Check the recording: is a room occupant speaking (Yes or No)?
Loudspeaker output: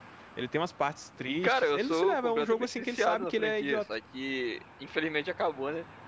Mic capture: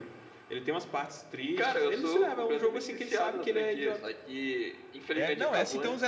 Yes